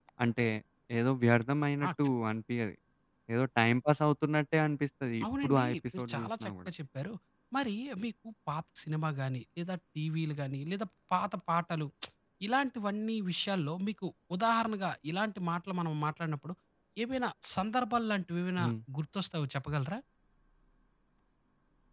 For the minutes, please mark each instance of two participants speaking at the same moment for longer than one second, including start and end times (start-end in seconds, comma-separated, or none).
5.4-6.7